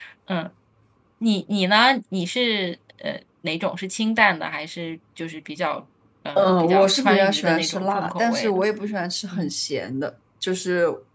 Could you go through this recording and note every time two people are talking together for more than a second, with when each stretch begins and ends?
6.3-8.6

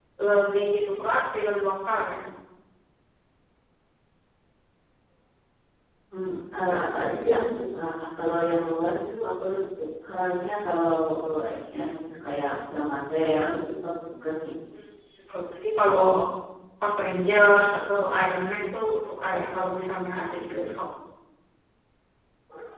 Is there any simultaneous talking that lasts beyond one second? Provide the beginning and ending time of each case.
none

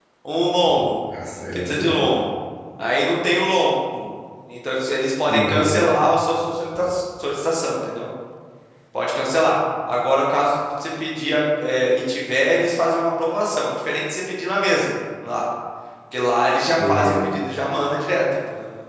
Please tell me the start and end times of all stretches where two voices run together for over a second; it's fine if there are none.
none

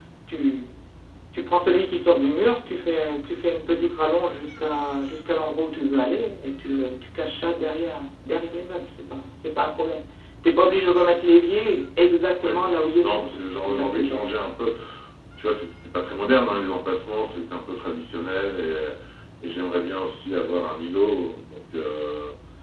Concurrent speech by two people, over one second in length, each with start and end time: 13.0-14.2

